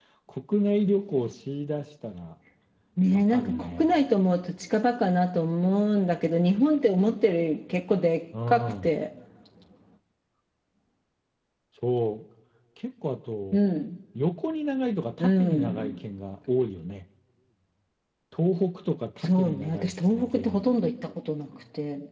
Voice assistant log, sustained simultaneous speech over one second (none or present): present